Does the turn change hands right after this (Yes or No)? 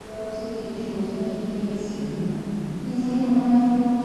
No